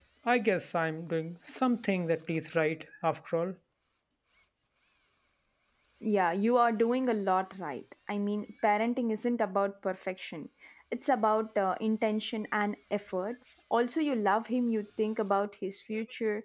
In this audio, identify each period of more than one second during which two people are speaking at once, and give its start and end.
none

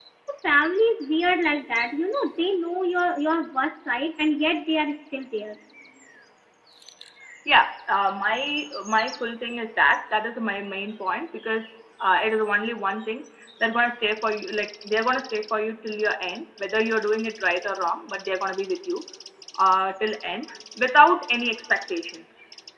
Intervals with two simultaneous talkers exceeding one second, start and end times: none

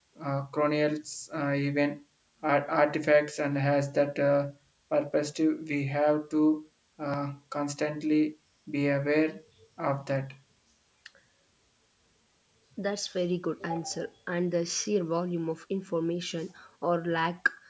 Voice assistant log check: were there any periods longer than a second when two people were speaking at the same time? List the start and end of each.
none

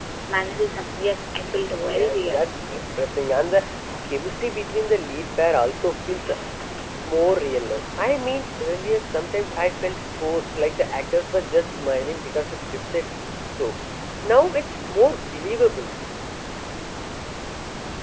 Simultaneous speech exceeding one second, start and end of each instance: none

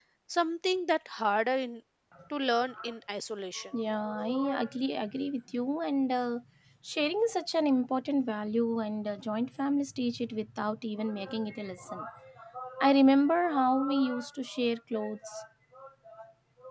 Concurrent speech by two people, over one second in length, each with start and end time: none

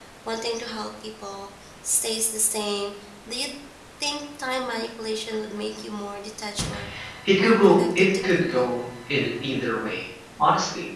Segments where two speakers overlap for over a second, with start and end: 7.4-8.7

